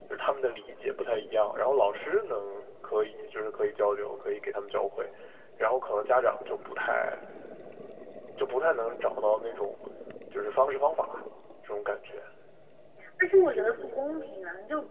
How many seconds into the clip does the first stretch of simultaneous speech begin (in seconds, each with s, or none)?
none